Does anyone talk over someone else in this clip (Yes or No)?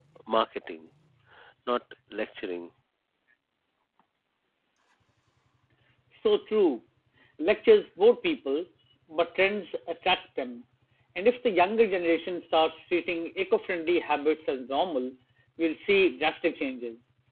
No